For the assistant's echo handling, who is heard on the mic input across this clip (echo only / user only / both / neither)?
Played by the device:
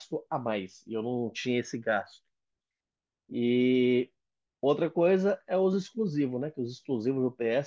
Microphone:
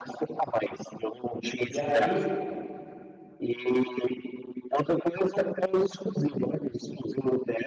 both